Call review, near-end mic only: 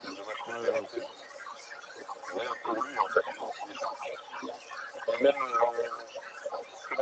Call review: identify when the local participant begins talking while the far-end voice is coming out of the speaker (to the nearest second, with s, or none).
0 s